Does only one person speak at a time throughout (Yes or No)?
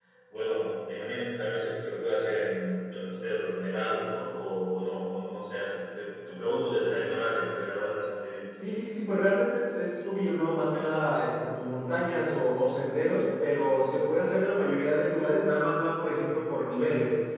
Yes